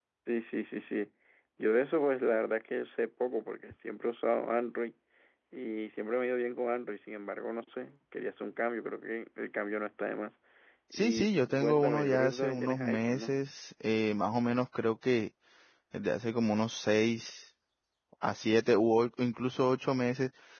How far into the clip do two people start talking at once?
10.9 s

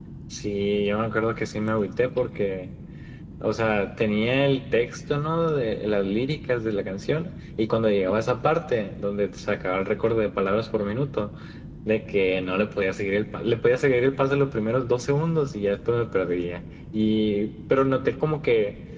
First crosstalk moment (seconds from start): none

